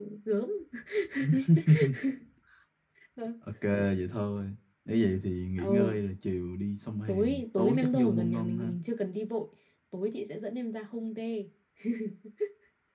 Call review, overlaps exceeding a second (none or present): present